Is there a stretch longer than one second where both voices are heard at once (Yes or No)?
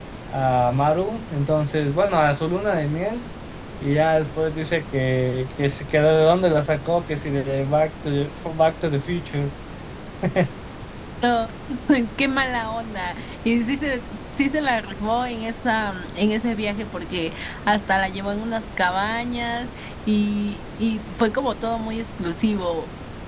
No